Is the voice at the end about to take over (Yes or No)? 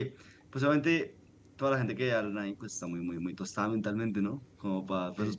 Yes